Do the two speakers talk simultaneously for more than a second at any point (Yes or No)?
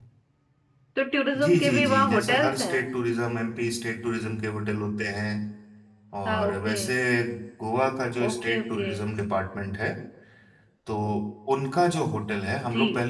Yes